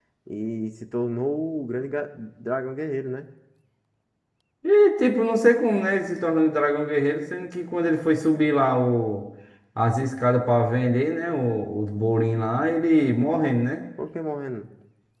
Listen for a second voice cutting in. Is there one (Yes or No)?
No